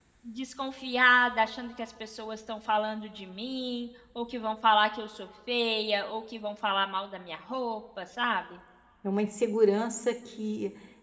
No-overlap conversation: Yes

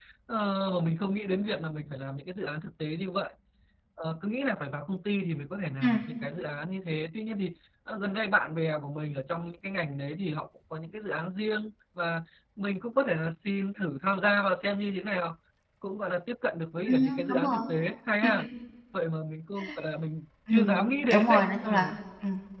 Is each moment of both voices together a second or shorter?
No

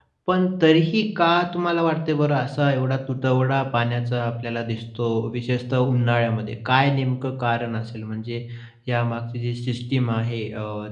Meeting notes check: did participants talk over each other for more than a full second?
No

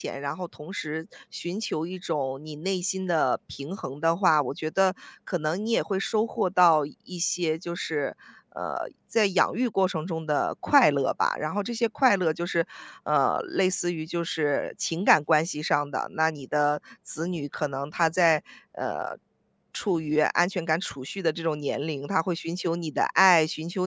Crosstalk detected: No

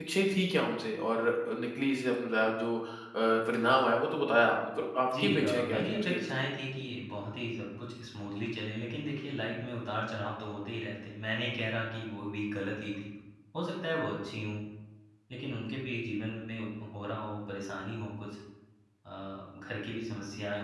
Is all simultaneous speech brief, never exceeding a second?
No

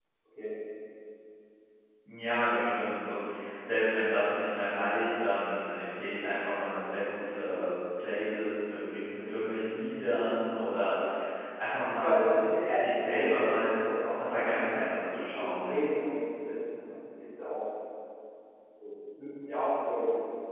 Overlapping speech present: Yes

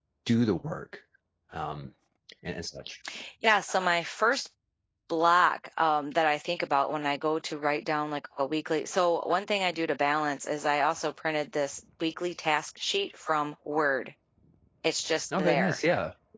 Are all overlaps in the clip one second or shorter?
Yes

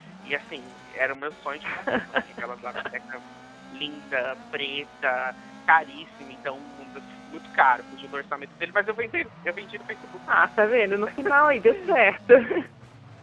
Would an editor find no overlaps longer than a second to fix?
Yes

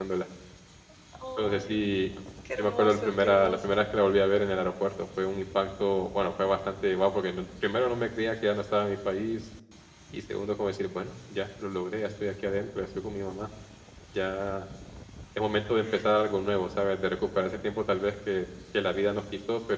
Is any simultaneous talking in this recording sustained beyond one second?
Yes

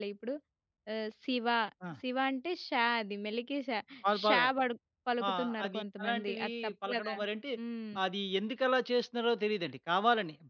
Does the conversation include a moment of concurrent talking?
Yes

